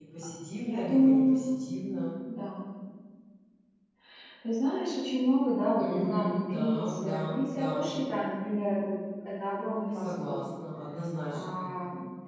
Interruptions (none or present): present